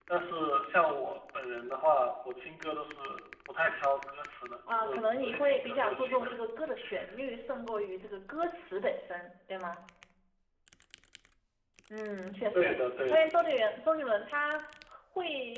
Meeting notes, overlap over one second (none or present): present